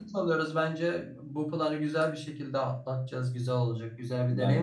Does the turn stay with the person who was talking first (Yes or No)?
Yes